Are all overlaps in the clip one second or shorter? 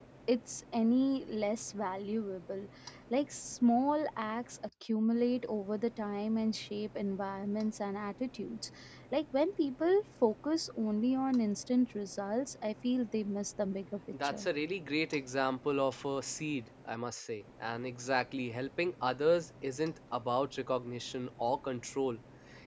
Yes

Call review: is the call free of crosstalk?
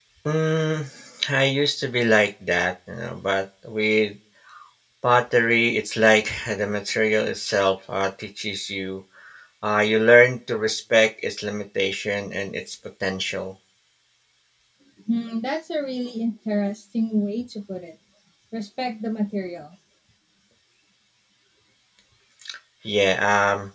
Yes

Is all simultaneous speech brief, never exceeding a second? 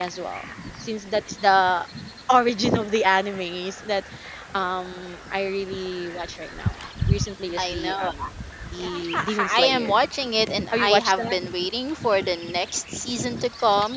No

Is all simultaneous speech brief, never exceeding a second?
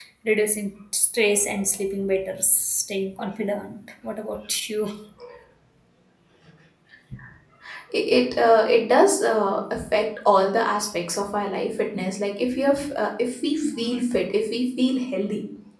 Yes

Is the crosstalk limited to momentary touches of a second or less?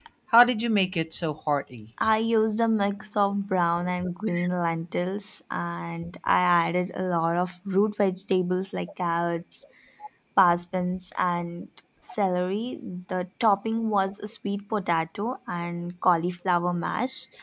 Yes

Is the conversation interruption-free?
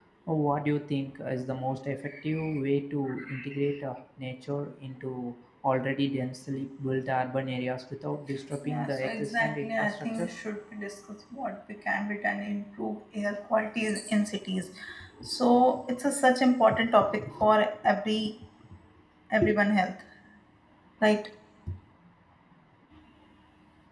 No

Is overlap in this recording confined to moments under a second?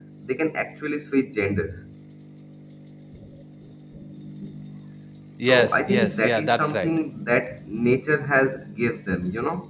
No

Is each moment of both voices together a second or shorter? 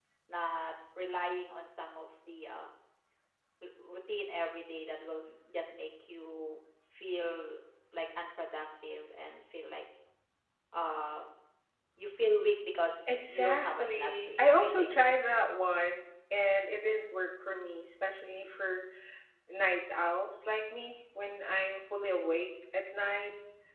No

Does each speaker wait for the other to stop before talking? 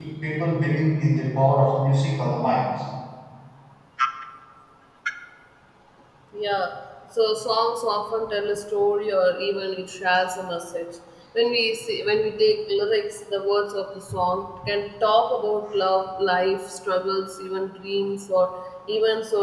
Yes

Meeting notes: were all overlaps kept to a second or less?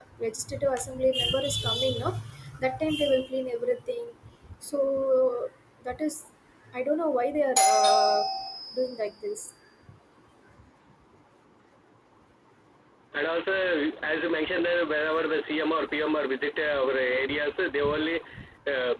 Yes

